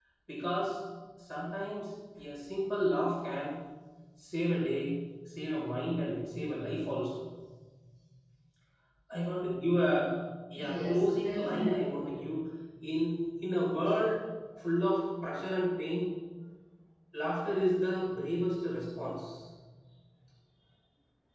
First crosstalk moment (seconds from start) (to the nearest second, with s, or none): 11 s